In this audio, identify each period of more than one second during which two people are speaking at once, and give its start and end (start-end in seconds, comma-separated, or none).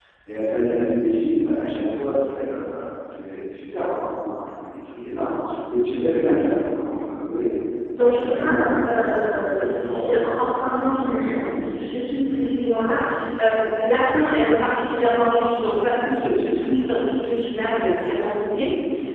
8.0-10.2